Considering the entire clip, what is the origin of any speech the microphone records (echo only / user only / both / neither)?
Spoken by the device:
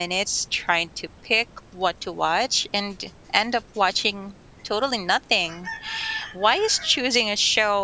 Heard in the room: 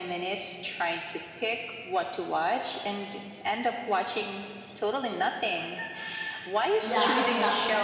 both